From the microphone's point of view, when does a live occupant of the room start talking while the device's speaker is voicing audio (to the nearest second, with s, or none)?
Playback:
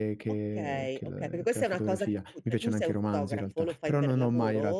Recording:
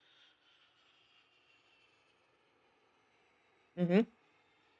4 s